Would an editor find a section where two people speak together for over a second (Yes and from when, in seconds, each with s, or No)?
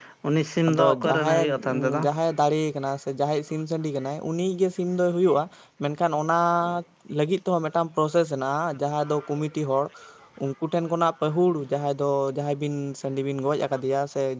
Yes, from 0.7 s